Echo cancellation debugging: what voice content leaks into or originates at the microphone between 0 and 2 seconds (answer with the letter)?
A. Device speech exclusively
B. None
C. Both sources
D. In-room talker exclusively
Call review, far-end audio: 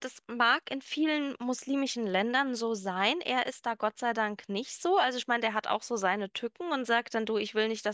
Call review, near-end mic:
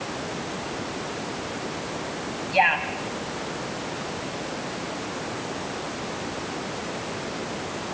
B